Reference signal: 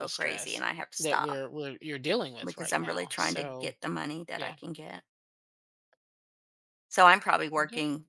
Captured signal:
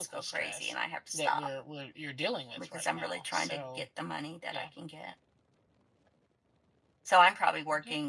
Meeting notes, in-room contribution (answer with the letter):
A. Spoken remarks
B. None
B